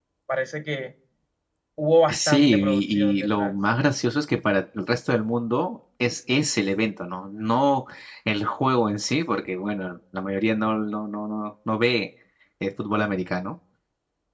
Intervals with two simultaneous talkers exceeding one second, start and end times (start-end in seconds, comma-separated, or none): 2.1-3.5